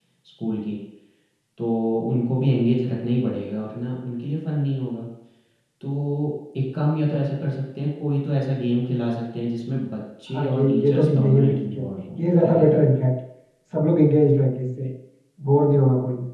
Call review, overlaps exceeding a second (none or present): present